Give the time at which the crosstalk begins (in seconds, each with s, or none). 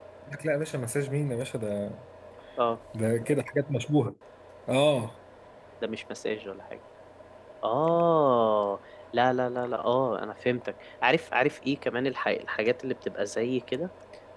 none